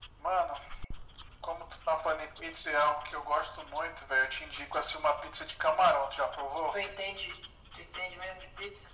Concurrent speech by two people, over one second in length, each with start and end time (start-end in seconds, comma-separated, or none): none